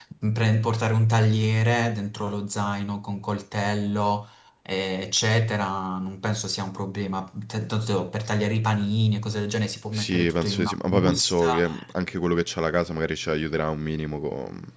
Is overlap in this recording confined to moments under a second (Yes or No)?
No